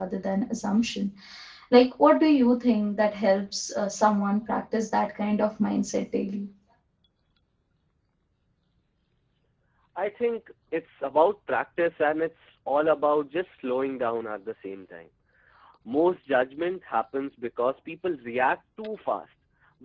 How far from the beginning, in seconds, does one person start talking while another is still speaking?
none

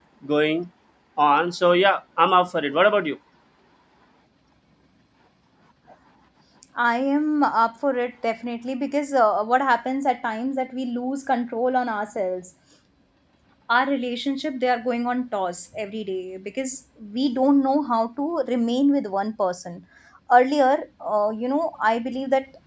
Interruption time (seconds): none

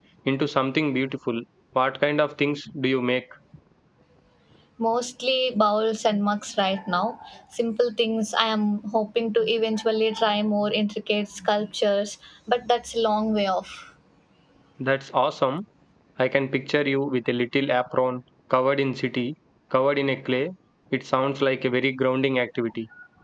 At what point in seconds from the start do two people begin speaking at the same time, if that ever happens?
none

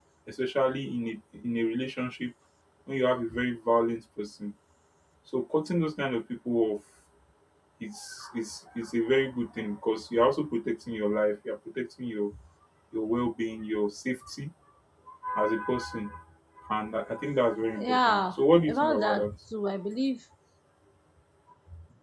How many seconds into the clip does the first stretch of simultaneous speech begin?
18 s

